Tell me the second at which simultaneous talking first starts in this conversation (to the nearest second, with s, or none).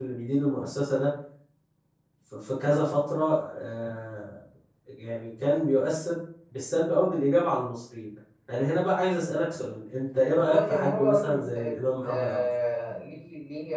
10 s